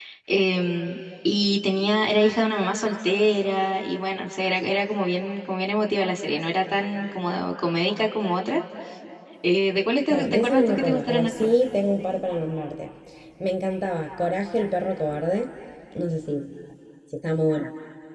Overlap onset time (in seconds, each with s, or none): 10.1 s